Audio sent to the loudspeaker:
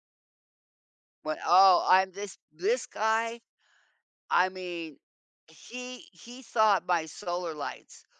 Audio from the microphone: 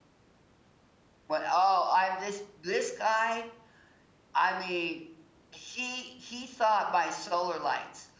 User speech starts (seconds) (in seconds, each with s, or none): none